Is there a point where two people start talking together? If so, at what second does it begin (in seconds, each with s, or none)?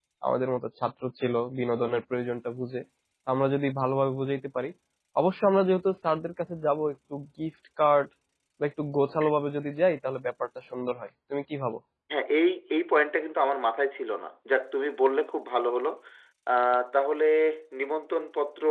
none